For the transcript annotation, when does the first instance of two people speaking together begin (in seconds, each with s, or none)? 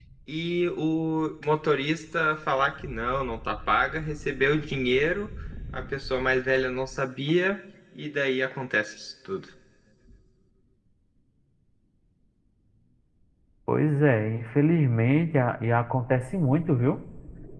none